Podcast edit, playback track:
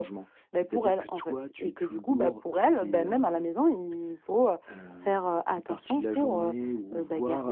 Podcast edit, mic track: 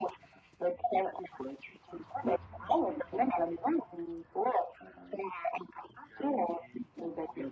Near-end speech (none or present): none